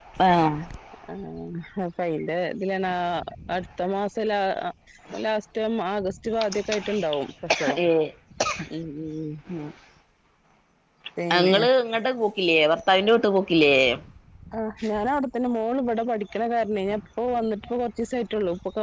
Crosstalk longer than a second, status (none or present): none